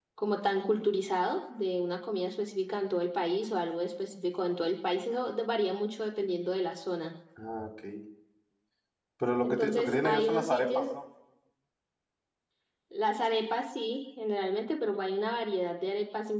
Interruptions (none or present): present